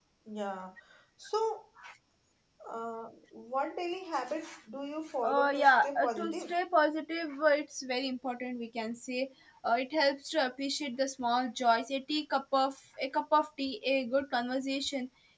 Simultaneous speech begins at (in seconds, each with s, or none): 5.2 s